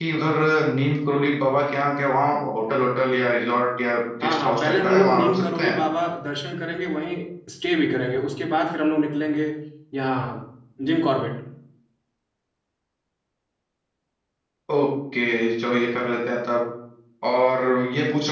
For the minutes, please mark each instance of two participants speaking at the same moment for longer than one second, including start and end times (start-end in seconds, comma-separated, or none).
4.2-5.7